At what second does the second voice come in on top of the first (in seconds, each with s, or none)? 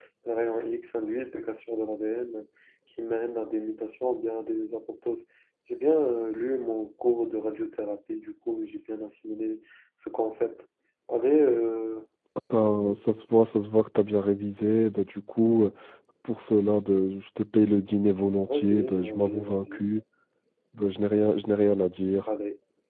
18.5 s